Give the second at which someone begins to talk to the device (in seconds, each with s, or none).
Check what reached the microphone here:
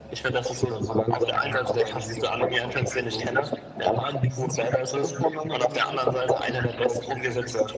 none